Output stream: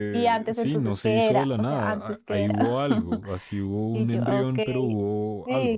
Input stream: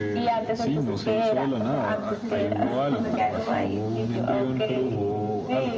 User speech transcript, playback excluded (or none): entonces uno queda como, ay,